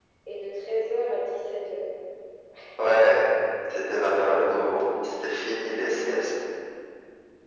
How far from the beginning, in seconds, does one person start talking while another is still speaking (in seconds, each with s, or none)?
none